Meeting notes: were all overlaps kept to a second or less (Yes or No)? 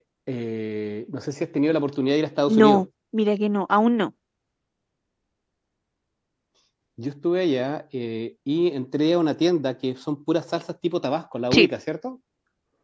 Yes